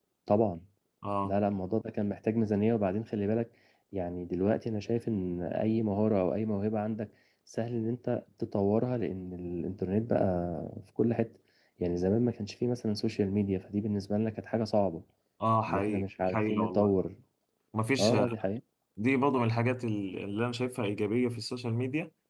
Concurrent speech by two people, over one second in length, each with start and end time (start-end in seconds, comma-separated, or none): 15.7-16.9